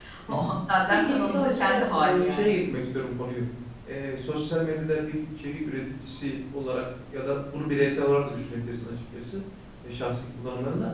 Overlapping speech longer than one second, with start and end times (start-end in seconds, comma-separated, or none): 0.9-2.5